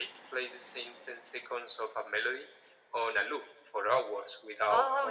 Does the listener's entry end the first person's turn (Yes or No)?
Yes